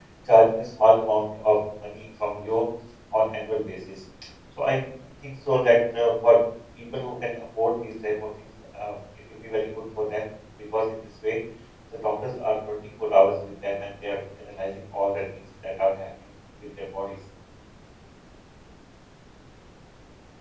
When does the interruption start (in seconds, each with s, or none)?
none